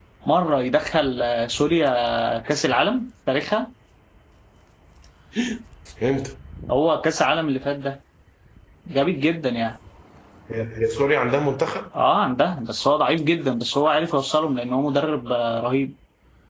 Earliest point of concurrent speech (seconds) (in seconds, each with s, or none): none